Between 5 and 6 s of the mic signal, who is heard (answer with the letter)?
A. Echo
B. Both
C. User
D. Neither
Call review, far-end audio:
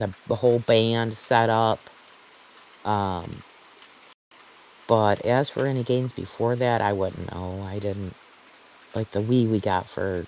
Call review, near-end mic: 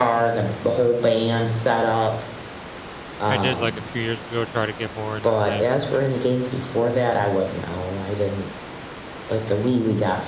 B